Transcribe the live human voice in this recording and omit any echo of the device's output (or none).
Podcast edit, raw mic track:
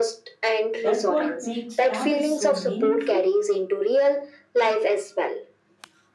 That what makes travel so meaningful.